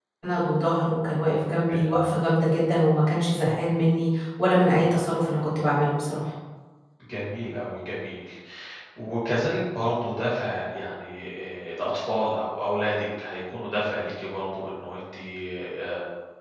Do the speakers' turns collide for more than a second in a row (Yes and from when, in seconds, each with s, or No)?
No